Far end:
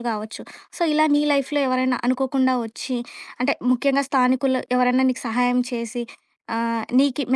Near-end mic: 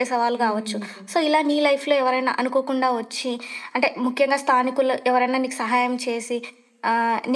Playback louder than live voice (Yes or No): Yes